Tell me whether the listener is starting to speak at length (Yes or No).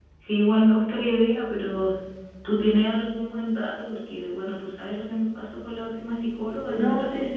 Yes